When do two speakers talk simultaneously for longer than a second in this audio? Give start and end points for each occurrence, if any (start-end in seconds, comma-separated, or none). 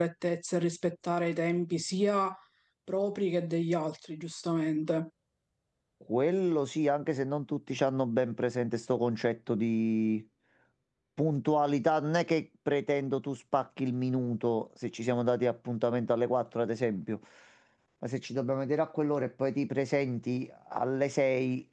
none